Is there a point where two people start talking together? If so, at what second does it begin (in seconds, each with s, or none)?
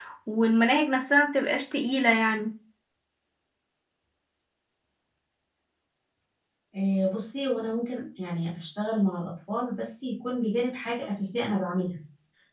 none